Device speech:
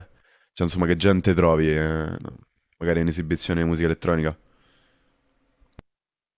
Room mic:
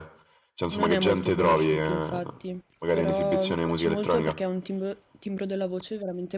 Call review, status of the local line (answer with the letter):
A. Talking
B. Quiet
A